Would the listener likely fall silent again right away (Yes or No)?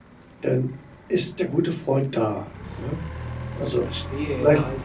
No